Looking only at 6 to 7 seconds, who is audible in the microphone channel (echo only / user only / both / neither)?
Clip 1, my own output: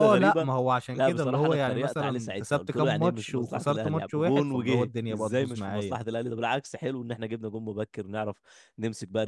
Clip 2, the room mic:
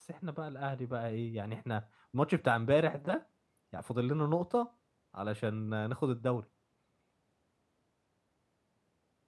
user only